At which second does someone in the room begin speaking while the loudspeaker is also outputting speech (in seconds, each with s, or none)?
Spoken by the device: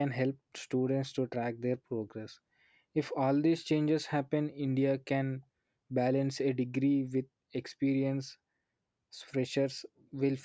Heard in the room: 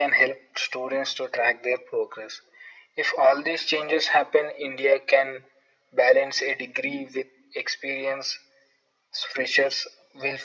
none